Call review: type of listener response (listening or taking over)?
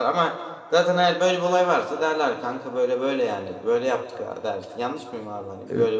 taking over